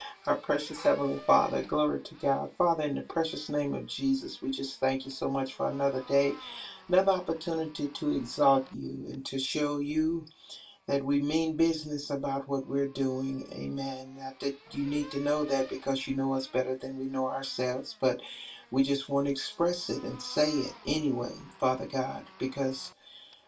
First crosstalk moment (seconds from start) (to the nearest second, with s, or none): none